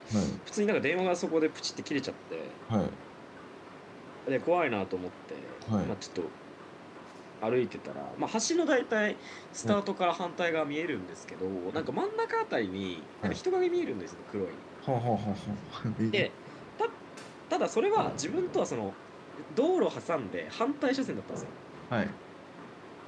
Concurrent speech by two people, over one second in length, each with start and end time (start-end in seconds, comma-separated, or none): none